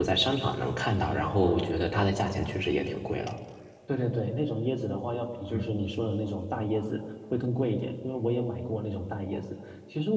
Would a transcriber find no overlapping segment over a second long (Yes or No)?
Yes